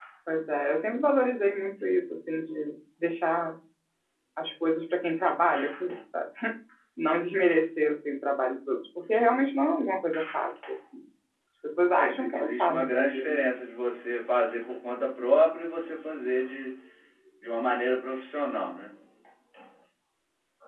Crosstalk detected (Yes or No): Yes